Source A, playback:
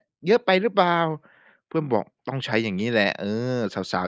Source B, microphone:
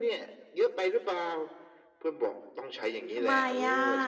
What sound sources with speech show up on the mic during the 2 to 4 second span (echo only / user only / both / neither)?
both